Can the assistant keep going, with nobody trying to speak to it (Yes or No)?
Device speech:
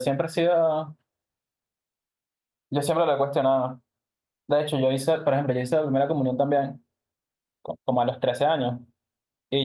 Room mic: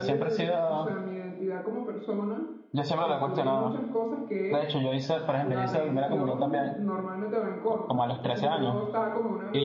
No